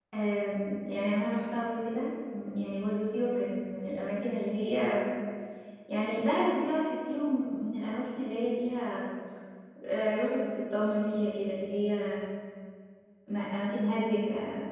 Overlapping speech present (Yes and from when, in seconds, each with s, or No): No